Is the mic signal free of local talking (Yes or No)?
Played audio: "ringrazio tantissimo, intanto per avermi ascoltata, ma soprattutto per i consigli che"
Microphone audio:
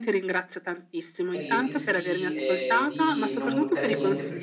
No